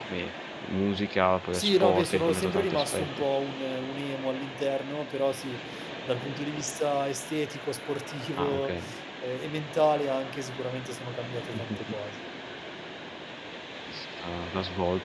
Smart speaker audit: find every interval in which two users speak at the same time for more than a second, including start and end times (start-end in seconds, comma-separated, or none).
1.5-3.1